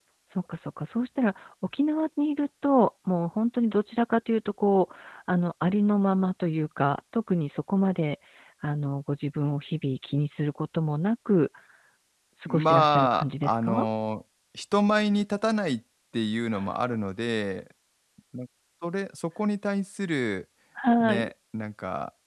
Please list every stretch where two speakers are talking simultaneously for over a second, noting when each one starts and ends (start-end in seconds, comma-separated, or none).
12.5-13.8